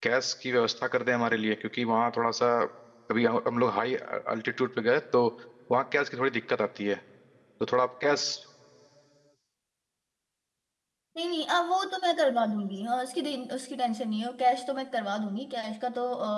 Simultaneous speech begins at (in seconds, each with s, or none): none